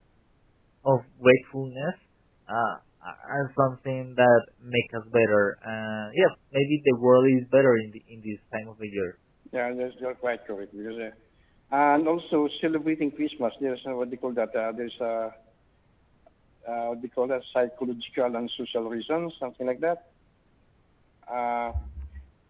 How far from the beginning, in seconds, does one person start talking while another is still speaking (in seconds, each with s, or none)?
none